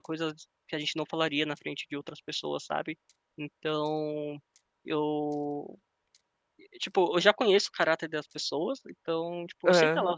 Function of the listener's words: listening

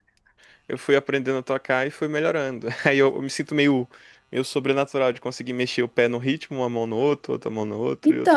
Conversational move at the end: taking over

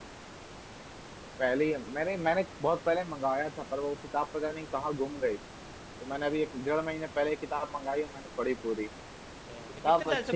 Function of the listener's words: taking over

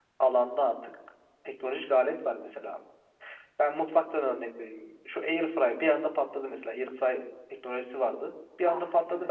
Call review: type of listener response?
listening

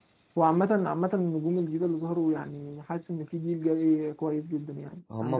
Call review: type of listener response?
taking over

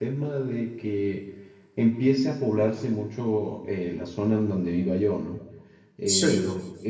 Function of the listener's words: listening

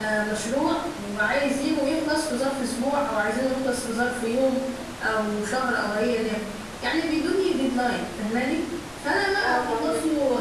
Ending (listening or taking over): listening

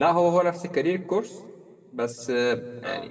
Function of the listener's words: listening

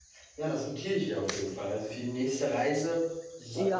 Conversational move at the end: taking over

